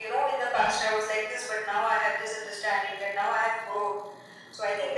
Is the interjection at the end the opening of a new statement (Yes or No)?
No